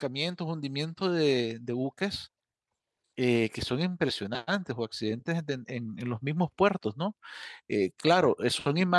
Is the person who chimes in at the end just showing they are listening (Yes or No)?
Yes